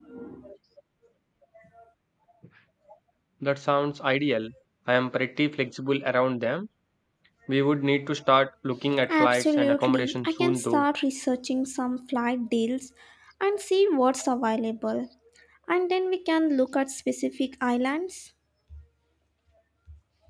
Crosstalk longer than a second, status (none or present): present